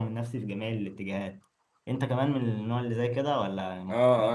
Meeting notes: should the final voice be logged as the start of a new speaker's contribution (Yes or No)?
Yes